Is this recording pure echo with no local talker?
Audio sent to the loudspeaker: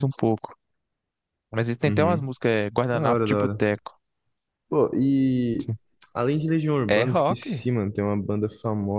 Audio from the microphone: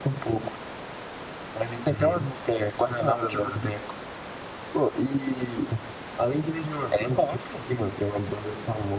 Yes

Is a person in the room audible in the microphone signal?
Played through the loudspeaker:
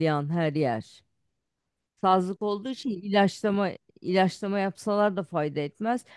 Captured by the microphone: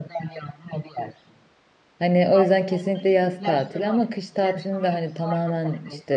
Yes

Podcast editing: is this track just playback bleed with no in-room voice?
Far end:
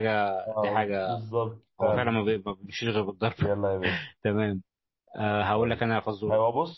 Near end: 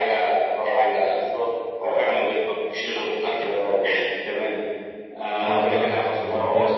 No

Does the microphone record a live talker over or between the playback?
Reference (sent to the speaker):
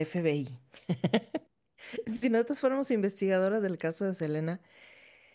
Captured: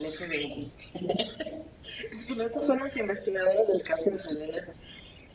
No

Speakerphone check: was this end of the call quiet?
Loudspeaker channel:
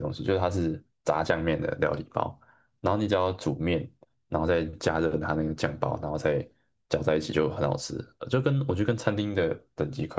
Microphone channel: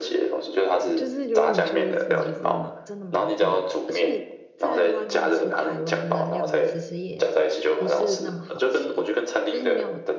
No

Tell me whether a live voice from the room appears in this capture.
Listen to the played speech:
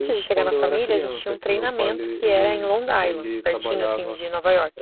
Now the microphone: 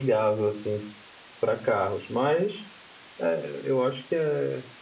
Yes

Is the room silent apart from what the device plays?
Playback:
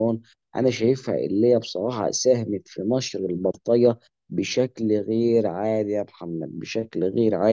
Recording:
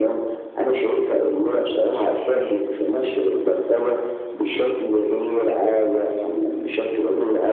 Yes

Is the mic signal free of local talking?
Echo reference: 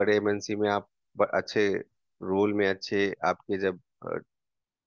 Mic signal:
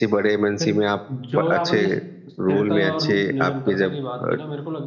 No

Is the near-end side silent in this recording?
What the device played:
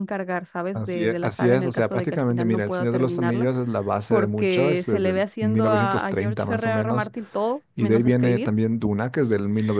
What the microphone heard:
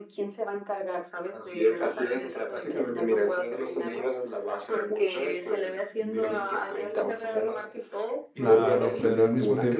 No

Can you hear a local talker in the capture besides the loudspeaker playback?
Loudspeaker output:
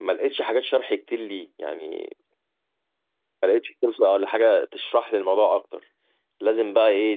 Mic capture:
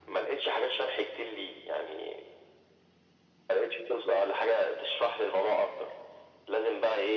No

